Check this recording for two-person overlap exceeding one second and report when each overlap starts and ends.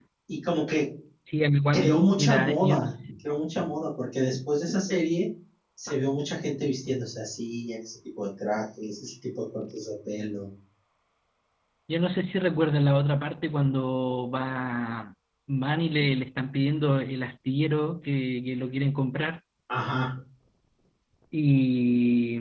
1.7-3.1

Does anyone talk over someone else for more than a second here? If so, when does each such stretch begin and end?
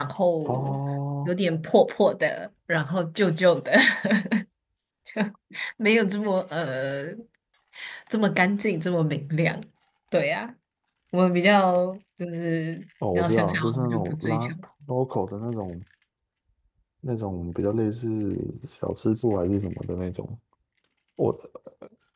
13.1-14.5

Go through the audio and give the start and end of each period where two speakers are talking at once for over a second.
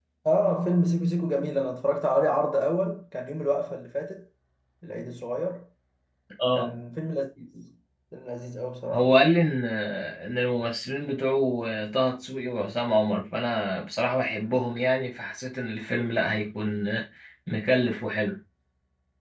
none

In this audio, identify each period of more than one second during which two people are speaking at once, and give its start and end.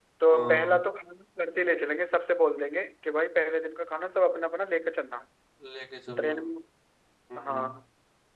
none

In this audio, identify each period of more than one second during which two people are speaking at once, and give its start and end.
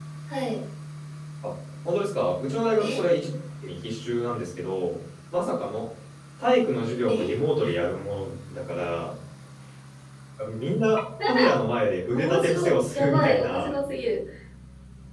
12.1-13.7

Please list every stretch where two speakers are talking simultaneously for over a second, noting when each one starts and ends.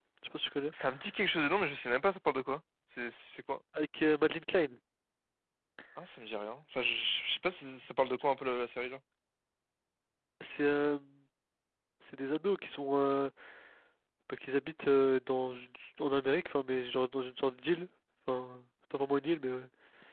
none

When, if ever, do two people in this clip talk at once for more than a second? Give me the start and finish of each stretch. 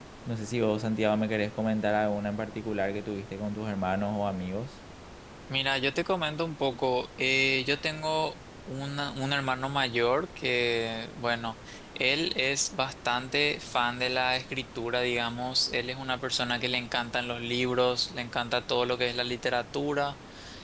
none

